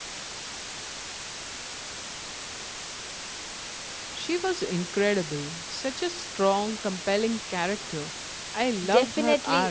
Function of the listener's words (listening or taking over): taking over